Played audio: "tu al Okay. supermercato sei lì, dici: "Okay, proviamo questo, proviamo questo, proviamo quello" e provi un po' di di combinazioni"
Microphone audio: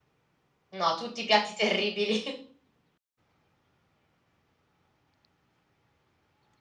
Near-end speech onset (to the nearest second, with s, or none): 1 s